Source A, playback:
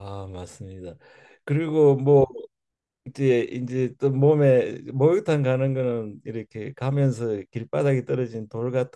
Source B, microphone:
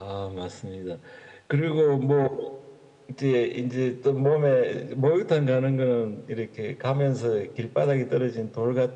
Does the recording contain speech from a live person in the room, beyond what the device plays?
No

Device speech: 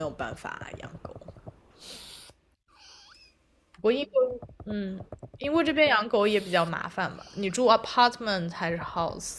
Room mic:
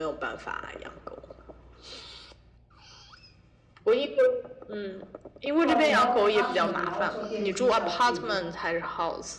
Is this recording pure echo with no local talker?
No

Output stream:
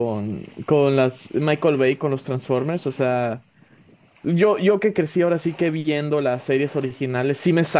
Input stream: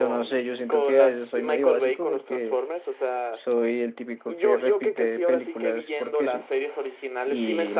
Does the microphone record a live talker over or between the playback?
Yes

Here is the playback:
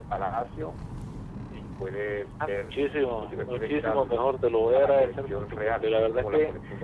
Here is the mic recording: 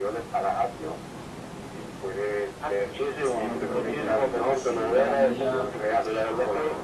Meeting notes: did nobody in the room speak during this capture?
No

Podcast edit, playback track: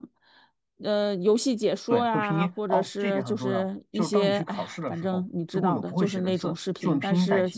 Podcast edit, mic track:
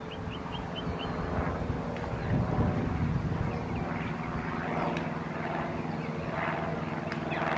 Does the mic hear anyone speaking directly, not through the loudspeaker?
No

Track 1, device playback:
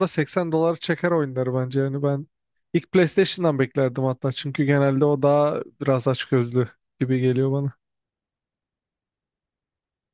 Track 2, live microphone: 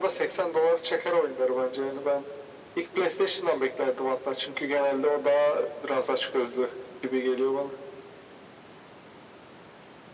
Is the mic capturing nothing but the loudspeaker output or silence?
Yes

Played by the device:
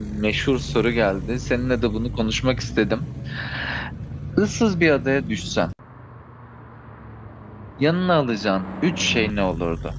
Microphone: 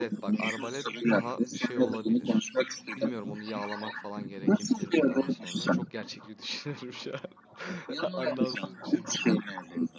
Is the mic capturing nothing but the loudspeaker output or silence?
No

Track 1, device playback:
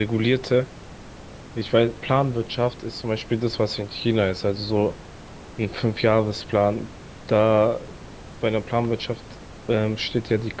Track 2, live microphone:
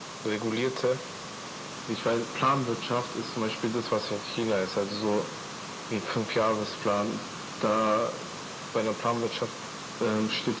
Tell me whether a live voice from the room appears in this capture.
No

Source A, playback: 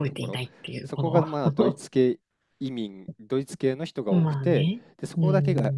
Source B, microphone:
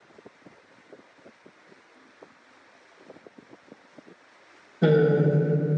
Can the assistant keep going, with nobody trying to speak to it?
No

